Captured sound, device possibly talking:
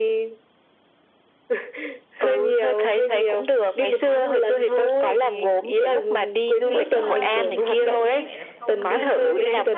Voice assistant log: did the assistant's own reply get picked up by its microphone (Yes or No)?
Yes